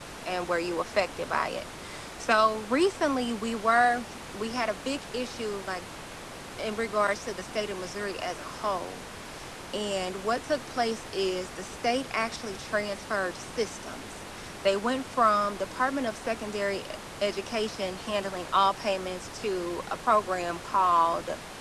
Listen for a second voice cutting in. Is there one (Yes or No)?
No